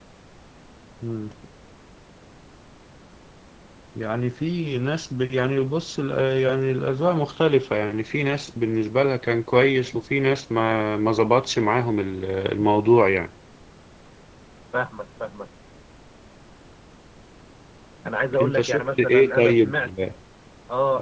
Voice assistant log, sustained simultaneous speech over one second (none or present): present